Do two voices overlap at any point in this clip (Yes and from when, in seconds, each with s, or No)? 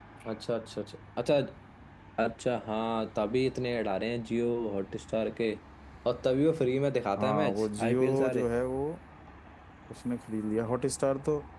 Yes, from 7.2 s